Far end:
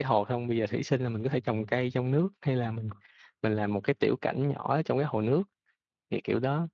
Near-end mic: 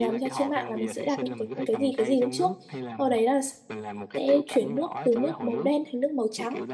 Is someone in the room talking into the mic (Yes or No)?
Yes